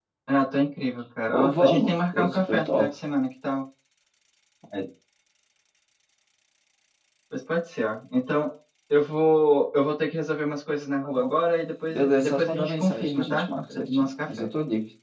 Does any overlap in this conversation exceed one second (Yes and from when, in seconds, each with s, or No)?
Yes, from 1.3 s